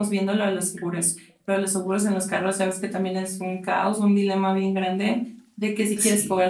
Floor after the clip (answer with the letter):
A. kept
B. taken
A